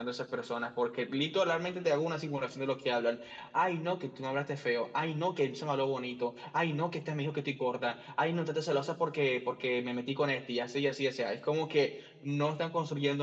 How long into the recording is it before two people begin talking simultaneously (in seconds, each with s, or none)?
none